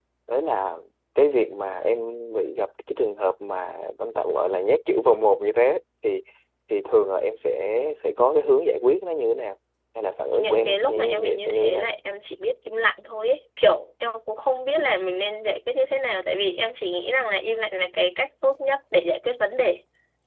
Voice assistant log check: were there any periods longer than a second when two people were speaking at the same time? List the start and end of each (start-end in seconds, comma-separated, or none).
10.3-11.9